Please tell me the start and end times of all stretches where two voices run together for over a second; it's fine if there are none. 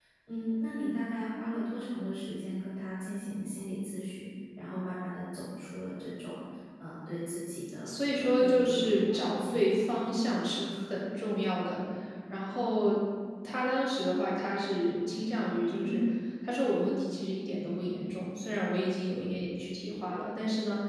7.8-9.9

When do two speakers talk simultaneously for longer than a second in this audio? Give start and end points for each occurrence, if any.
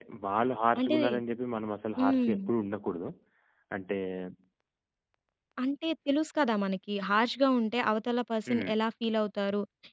none

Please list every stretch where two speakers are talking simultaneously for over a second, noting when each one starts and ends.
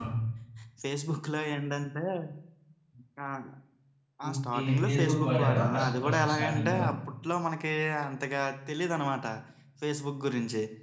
4.3-6.7

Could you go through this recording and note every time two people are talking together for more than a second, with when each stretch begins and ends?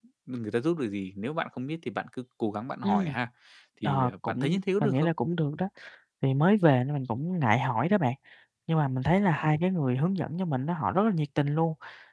3.8-5.1

